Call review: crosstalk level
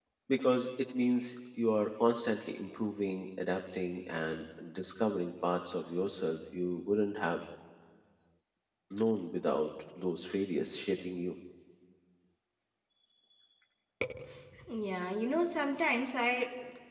none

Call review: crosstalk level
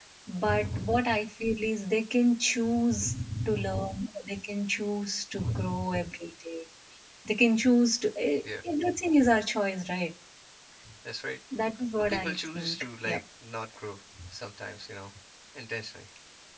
present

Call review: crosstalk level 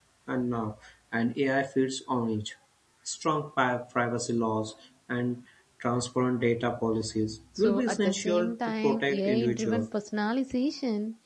present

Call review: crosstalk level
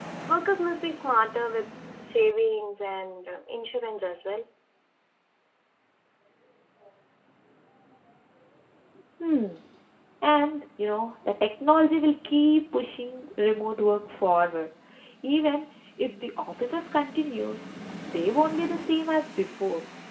none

